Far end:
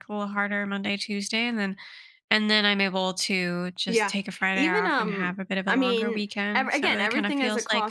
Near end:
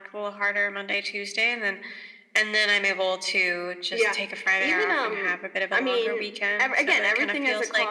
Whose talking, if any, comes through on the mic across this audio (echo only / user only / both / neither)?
echo only